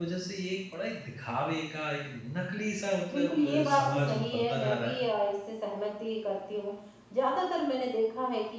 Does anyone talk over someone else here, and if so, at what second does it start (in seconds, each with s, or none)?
3.1 s